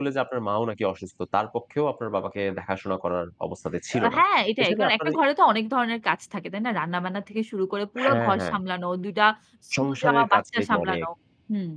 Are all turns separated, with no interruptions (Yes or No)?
No